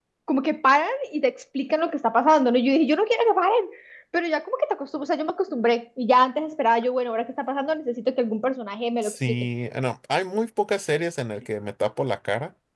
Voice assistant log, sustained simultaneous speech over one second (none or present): none